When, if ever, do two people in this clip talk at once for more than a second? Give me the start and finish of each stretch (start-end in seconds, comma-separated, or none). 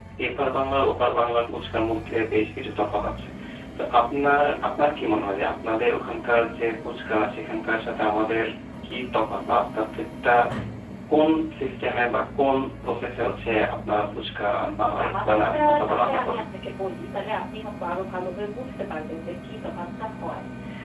14.8-16.4